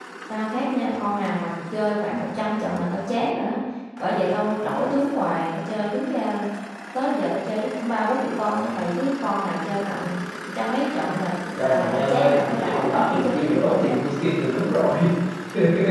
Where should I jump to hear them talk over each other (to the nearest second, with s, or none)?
12 s